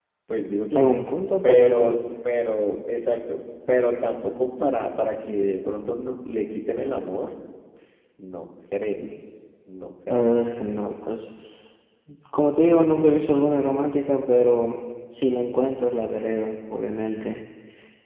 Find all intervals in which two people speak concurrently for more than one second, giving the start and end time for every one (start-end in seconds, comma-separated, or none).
none